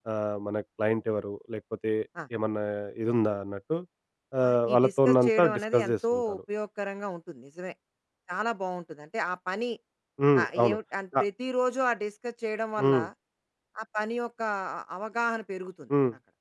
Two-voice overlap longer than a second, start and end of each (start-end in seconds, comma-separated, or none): 4.5-6.4